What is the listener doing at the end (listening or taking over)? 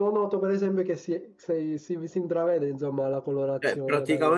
taking over